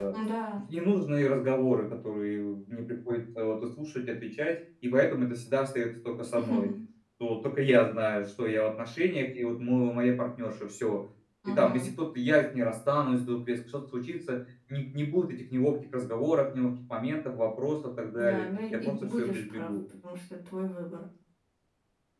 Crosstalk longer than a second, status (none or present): present